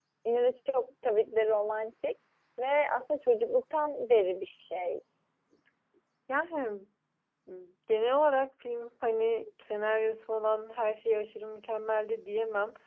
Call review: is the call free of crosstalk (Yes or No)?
Yes